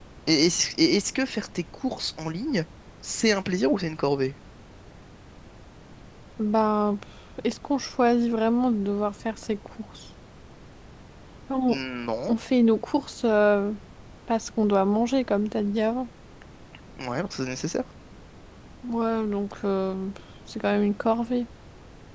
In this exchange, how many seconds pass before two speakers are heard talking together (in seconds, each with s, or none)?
none